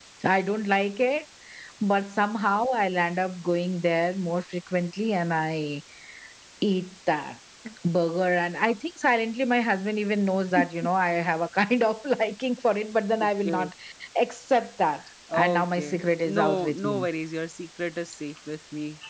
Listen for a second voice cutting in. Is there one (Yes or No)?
Yes